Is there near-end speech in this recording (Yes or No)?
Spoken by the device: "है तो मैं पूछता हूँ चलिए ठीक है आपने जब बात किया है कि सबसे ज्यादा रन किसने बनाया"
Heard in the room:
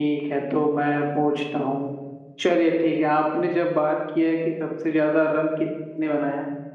No